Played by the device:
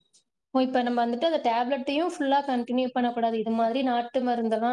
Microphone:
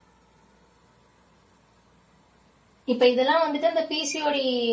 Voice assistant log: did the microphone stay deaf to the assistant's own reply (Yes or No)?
Yes